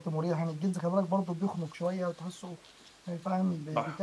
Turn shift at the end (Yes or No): No